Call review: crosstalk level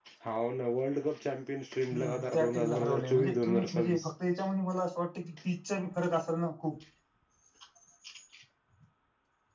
present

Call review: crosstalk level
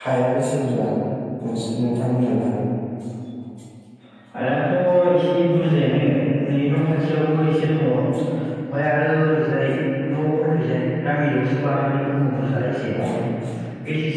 none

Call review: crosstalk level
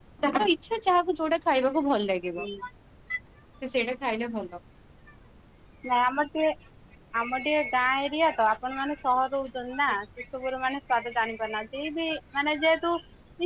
none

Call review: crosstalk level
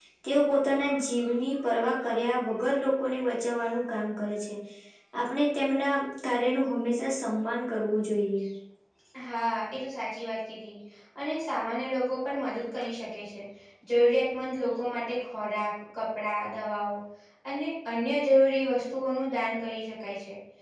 none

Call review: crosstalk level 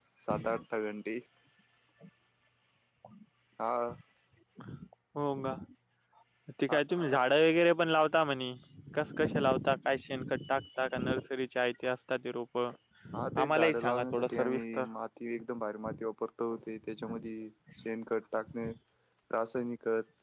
present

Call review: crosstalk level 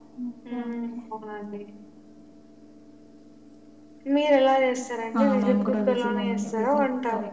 present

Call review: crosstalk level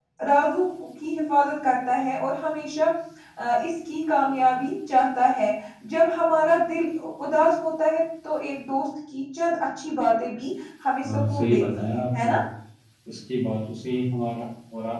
present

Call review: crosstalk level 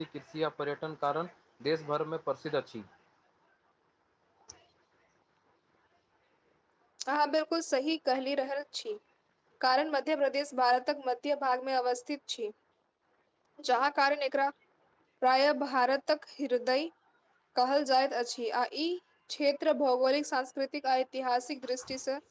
none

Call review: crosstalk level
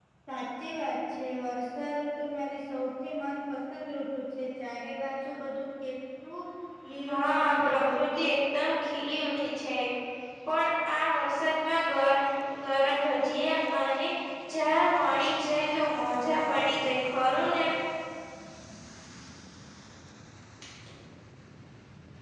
present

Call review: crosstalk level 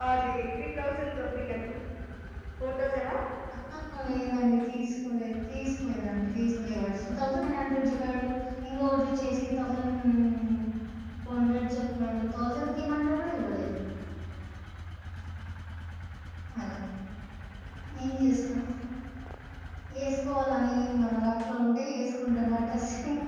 none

